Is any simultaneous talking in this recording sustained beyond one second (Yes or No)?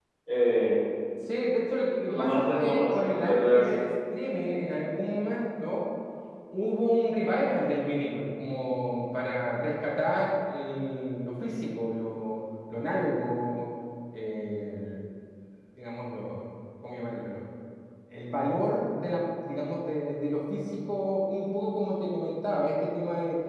Yes